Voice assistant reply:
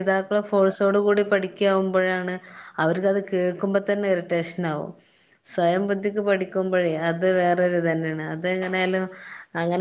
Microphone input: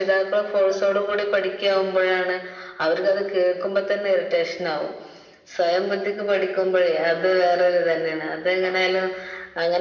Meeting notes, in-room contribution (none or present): none